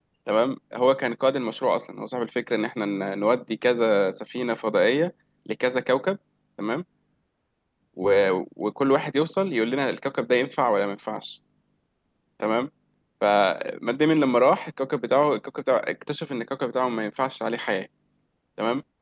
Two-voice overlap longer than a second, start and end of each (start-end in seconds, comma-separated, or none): none